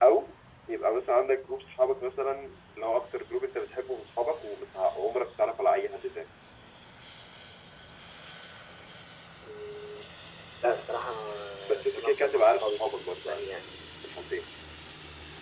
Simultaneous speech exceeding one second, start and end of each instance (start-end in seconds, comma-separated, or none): 11.7-13.4